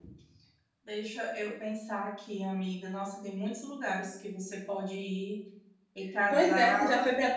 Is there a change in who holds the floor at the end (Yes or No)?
Yes